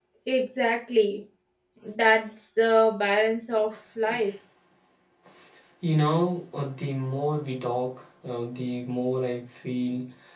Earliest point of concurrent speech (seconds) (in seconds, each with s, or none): none